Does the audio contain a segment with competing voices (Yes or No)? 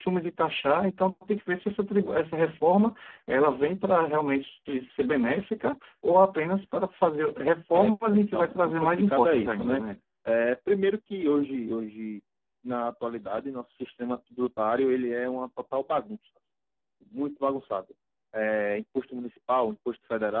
Yes